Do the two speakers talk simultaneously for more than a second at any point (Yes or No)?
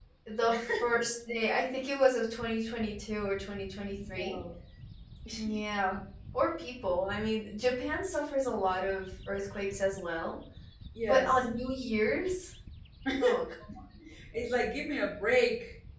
No